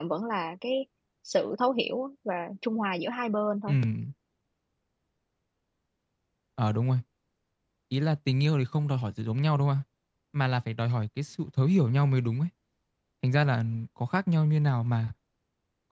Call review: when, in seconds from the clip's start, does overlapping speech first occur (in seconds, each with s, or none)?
none